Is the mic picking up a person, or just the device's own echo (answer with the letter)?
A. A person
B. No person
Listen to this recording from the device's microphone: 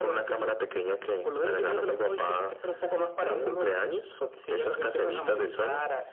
B